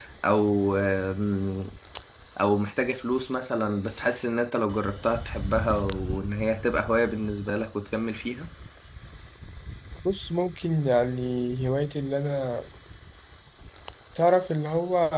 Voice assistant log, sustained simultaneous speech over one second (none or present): none